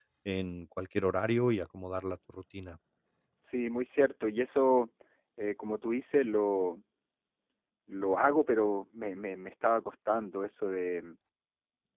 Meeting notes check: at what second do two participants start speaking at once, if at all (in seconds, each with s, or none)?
none